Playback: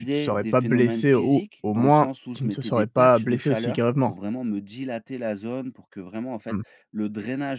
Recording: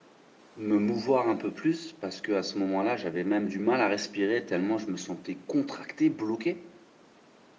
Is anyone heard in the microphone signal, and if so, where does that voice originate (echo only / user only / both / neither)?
user only